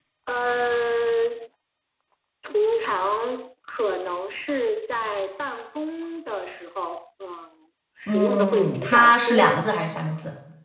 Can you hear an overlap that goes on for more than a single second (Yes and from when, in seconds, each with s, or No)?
Yes, from 8.1 s